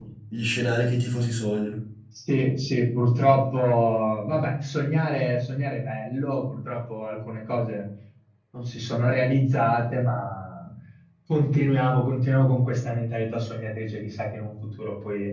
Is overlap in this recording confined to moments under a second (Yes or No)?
Yes